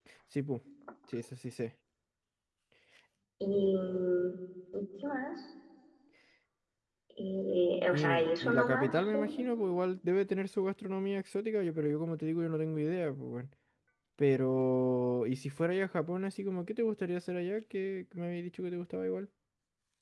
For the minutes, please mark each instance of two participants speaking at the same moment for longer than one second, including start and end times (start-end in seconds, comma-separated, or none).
7.9-9.4